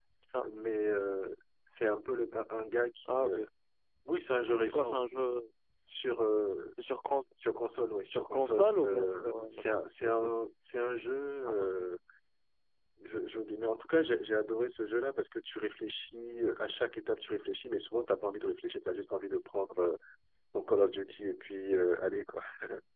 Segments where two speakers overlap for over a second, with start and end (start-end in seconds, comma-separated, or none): 8.1-9.5